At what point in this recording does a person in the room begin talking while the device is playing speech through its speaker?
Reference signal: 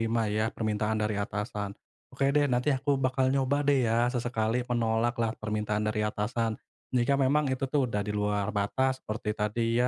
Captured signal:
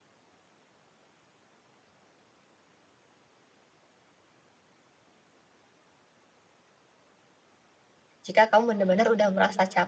8 s

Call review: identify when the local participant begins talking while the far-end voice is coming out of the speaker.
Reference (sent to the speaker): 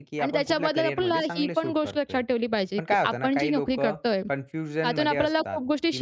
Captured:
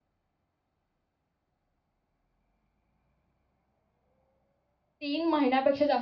5 s

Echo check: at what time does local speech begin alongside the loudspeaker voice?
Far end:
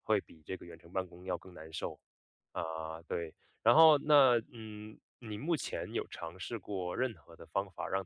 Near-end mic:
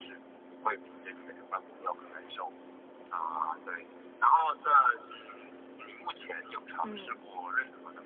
7 s

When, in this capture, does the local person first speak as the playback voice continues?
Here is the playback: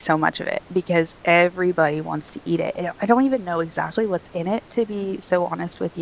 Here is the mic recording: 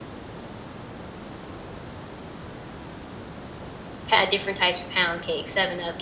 4 s

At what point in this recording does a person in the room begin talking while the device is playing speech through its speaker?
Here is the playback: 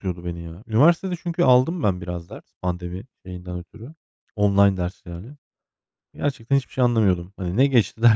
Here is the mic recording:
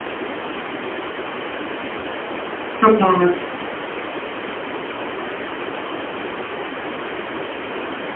3 s

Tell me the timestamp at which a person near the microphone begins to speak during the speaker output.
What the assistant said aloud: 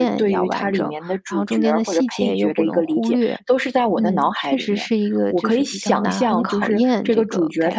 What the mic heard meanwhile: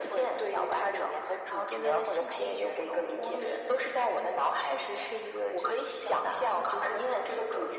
none

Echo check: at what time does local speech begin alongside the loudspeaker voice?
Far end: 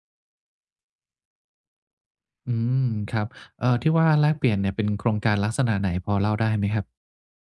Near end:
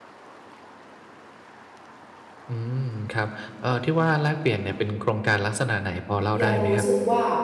6 s

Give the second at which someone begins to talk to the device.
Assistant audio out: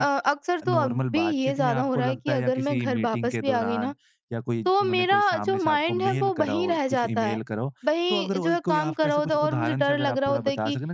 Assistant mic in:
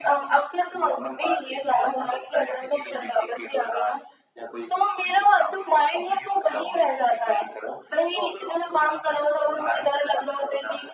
none

